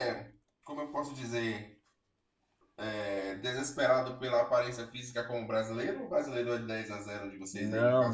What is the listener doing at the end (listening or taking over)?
taking over